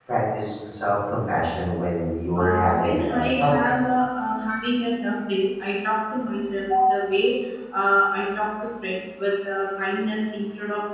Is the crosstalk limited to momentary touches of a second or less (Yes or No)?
No